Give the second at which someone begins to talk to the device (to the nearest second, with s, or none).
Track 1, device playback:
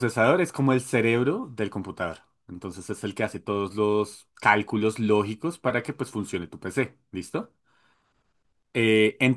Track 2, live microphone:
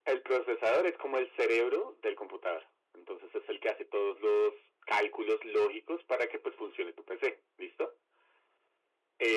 none